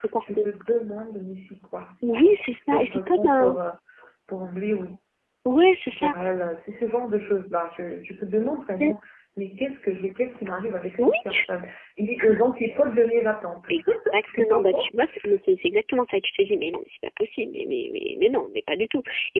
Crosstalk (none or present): present